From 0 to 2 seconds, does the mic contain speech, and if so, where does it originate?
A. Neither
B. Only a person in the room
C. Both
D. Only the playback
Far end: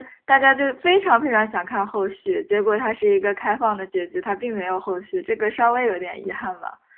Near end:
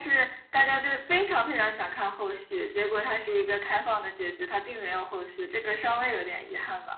D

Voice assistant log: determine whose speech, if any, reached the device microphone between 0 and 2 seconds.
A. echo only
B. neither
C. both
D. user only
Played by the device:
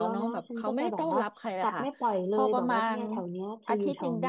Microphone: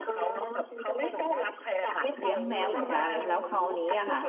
A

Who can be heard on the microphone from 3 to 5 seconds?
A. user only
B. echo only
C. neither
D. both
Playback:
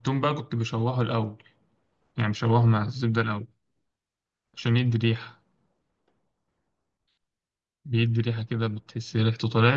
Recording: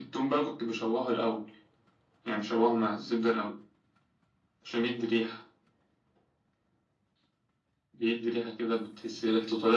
B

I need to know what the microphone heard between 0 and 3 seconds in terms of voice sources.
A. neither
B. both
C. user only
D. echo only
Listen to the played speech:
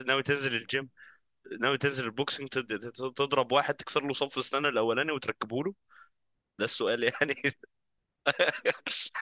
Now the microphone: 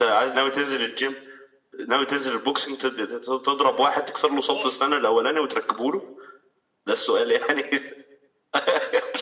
D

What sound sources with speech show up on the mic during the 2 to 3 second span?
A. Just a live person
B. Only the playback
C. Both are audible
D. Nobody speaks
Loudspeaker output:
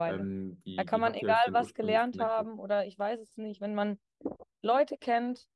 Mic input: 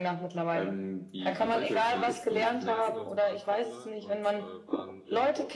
C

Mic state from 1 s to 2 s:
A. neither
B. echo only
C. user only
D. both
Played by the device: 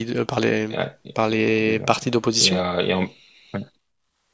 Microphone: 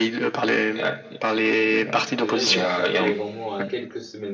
B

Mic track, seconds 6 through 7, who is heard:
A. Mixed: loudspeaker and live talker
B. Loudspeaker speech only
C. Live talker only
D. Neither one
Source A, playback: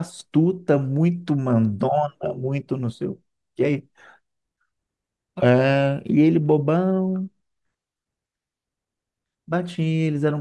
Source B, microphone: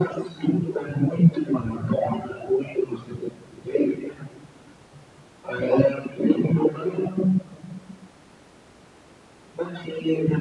B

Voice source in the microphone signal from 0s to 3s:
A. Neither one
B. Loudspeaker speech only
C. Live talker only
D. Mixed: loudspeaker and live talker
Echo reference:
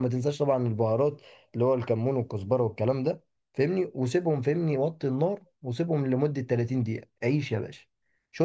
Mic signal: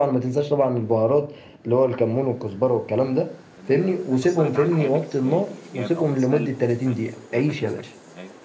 B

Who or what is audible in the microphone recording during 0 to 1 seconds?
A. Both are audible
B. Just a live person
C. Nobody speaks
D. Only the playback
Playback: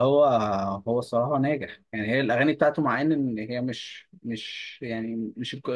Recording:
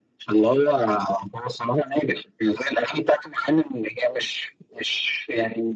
D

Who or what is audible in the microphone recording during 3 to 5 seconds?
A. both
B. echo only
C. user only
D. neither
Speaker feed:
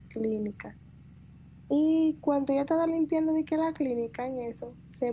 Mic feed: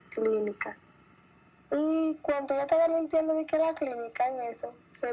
B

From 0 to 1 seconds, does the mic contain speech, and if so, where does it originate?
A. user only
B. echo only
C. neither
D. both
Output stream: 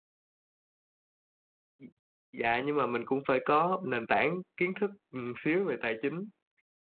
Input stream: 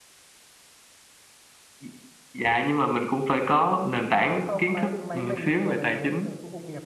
C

